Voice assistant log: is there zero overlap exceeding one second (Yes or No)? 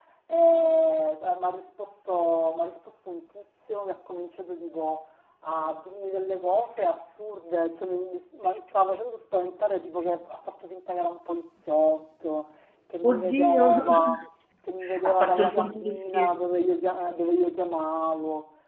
No